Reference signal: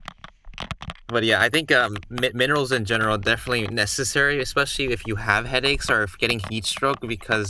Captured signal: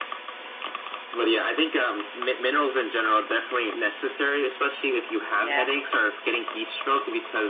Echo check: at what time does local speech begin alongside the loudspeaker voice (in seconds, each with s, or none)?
5.4 s